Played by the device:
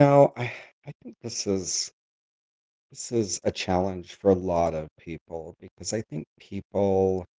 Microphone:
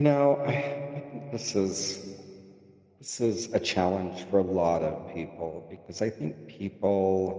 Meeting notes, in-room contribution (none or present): none